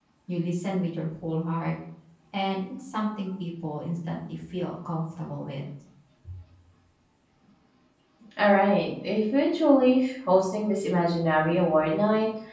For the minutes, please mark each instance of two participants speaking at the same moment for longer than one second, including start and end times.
none

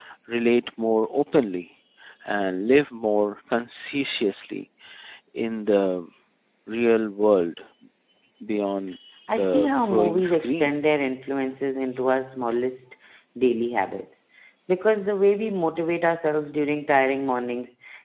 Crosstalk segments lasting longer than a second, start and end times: 9.3-10.7

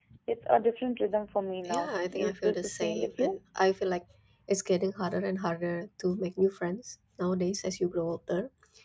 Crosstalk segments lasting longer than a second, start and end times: 1.6-3.3

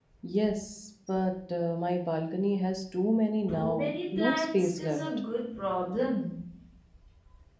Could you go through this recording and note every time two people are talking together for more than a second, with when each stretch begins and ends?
3.5-5.0

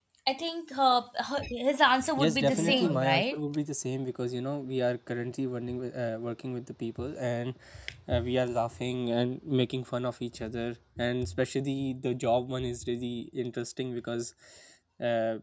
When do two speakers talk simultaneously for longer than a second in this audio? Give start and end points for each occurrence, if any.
2.2-3.4

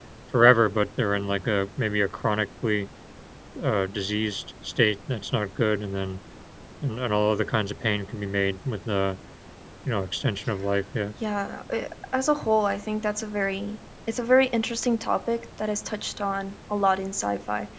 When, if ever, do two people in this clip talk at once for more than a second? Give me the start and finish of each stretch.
none

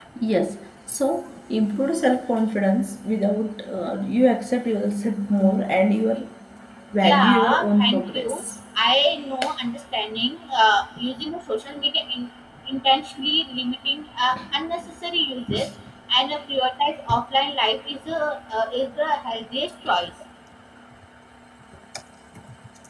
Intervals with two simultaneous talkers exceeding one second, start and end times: 7.0-8.4

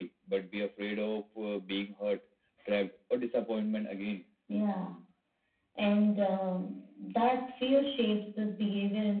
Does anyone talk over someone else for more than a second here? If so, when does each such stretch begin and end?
none

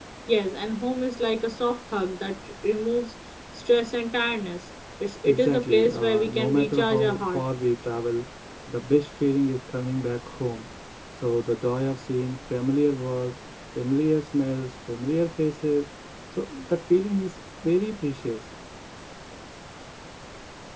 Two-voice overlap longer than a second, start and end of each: 5.2-7.4

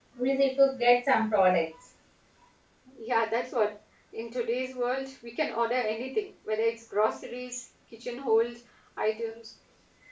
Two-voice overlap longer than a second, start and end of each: none

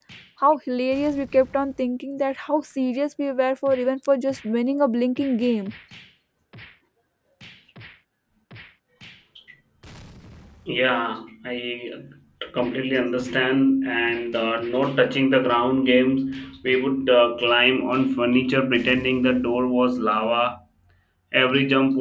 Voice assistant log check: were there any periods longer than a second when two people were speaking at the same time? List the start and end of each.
none

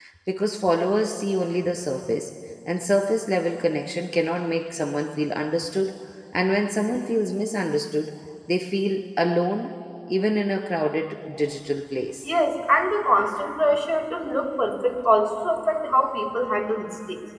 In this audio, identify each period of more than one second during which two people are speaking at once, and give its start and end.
none

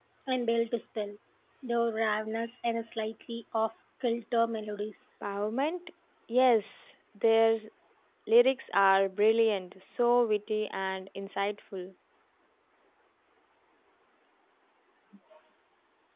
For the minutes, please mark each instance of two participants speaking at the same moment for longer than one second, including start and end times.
none

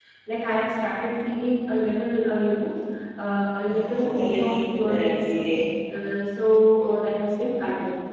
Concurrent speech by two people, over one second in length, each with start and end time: 3.6-5.3

